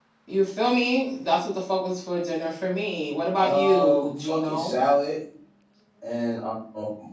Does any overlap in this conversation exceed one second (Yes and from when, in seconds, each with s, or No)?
Yes, from 3.4 s